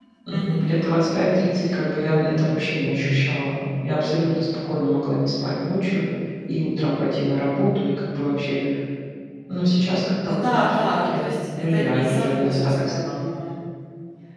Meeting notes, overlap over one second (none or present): present